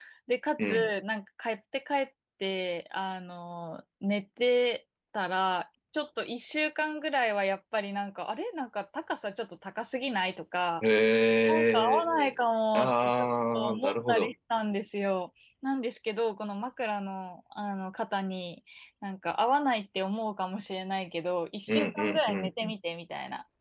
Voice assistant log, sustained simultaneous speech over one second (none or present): present